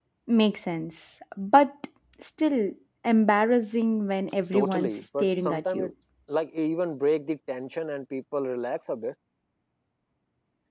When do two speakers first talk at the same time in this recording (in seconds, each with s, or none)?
4.5 s